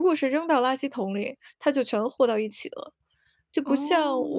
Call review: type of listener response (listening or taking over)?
listening